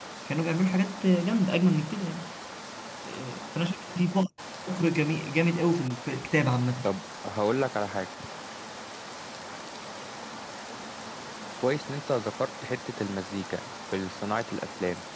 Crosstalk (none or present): none